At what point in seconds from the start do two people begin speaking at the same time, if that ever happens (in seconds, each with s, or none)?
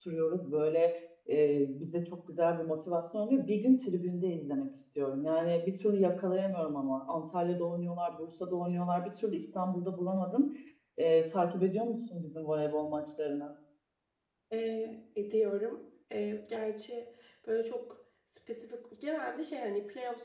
none